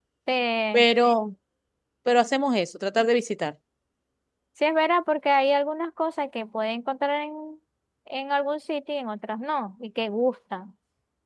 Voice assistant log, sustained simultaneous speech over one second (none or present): none